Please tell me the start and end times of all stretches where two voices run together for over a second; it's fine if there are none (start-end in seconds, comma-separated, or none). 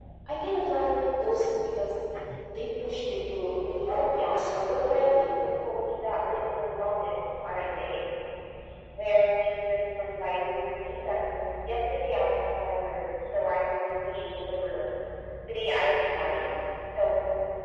3.9-5.2